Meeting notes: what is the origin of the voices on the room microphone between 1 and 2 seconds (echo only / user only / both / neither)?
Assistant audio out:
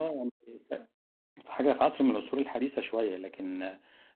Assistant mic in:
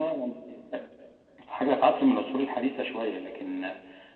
echo only